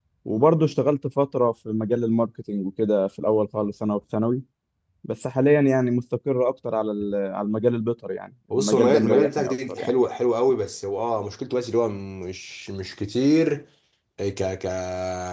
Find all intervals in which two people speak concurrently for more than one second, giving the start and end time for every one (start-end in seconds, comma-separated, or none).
8.5-9.9